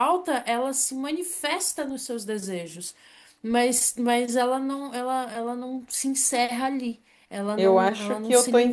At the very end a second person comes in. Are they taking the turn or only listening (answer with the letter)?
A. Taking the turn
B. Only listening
A